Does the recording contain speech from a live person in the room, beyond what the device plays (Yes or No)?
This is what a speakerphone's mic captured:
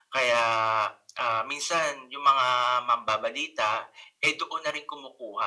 No